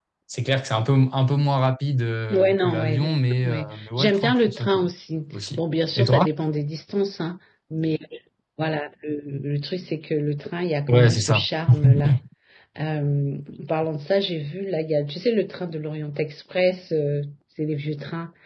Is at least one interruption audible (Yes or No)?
Yes